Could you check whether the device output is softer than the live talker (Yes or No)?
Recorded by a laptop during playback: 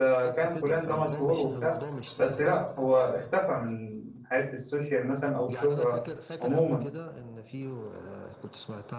Yes